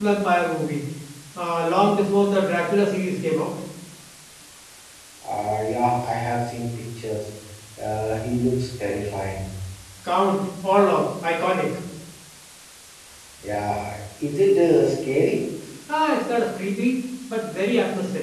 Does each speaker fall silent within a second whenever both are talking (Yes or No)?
Yes